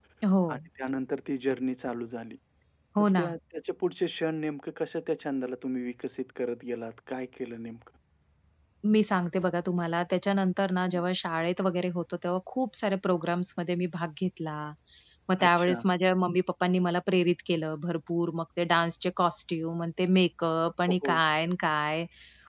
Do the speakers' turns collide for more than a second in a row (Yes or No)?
No